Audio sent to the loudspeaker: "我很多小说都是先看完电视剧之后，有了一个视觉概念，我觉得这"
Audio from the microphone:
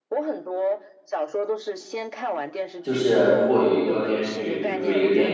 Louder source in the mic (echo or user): user